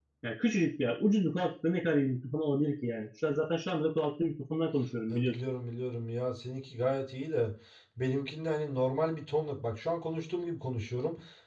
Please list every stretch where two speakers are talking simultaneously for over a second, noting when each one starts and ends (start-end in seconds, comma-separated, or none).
none